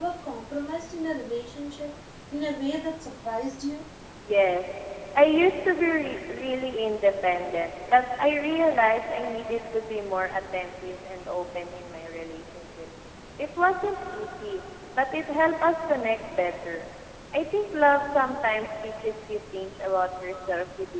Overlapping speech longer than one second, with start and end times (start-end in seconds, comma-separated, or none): none